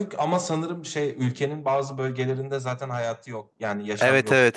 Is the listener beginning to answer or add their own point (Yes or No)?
Yes